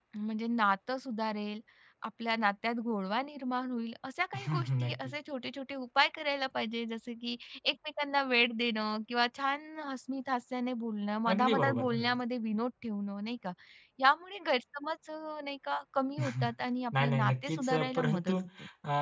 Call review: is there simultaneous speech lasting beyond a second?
Yes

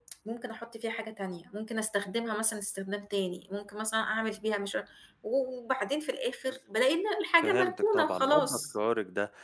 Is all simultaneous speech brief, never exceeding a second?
No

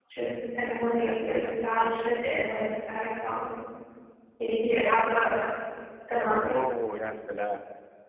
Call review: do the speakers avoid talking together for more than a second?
Yes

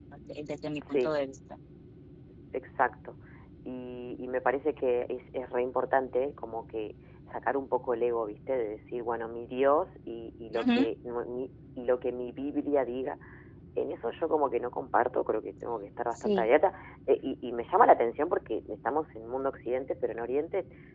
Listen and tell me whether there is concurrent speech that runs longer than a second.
No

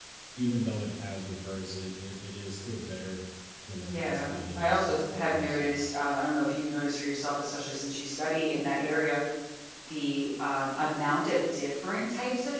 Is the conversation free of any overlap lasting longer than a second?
No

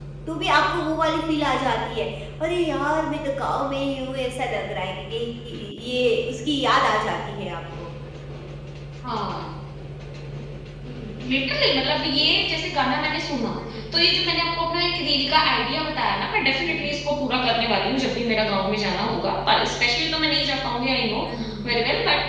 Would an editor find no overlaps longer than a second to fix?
Yes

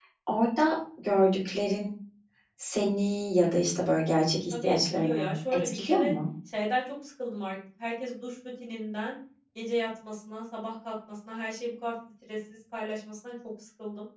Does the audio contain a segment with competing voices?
Yes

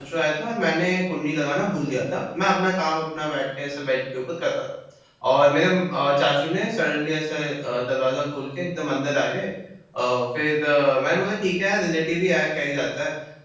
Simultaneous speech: No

